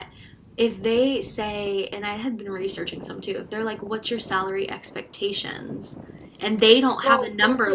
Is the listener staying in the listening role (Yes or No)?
No